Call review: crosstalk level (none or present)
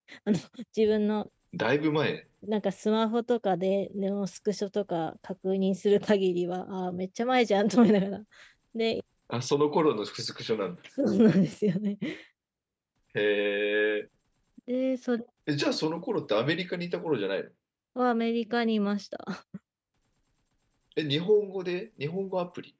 none